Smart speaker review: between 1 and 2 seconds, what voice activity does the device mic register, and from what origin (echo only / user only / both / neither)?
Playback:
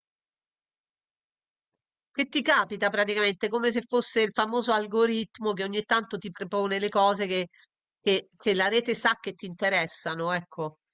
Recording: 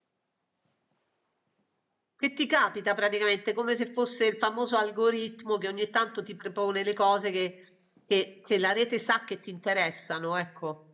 neither